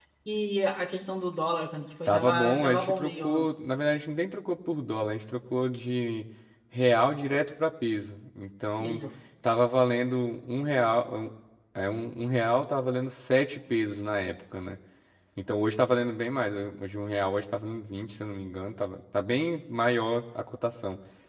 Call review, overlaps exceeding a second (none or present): present